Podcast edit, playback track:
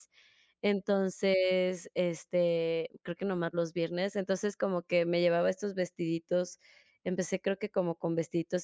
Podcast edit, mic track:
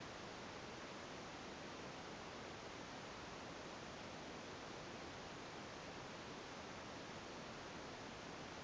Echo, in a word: none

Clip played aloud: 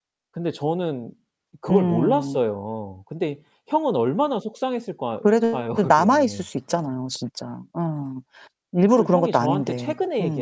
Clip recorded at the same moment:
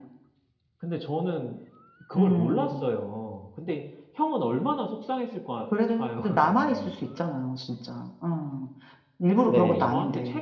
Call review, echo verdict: present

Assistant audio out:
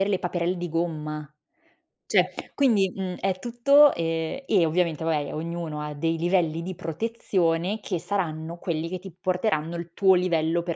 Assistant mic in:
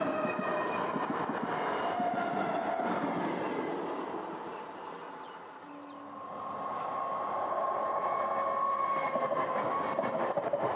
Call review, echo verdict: none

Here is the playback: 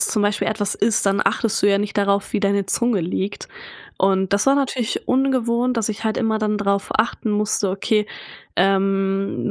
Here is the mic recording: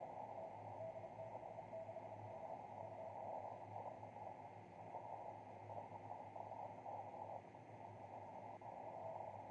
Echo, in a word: none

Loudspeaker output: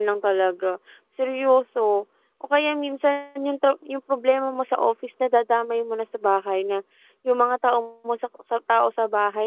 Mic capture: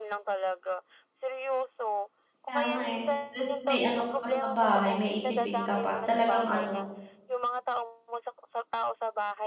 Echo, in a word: present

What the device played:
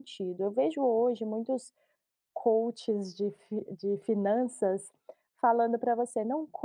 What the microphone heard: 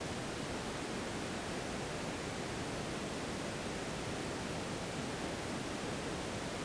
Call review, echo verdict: none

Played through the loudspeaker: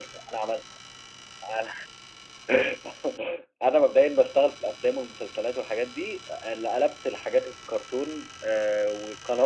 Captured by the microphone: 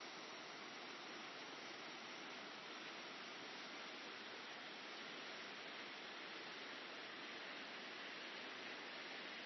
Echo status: none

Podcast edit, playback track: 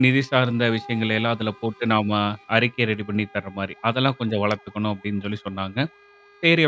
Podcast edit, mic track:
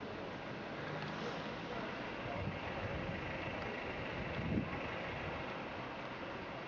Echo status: none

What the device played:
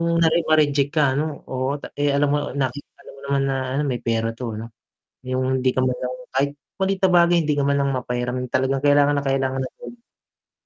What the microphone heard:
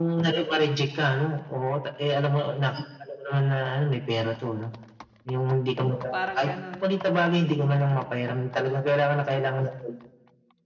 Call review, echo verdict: present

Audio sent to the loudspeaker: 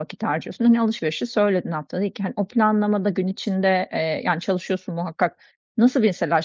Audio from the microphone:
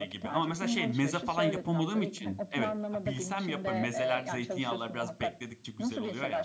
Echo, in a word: present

